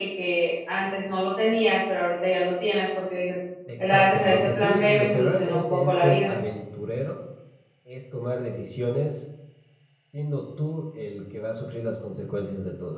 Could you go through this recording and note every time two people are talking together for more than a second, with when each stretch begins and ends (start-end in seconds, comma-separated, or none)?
3.8-6.3